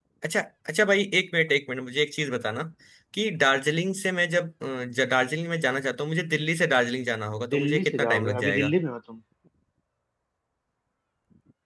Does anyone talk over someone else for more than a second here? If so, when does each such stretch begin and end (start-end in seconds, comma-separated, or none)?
7.5-8.8